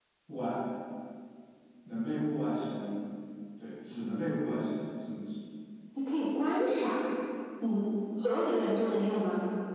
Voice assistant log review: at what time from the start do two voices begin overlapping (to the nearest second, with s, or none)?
none